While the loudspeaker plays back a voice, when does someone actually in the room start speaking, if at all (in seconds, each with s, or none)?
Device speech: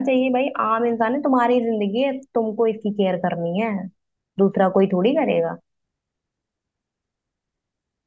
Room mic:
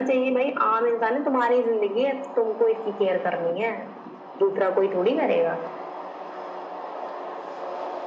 none